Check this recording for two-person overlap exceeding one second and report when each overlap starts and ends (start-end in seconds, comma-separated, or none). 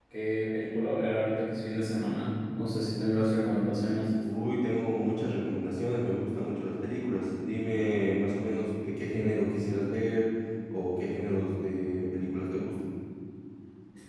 none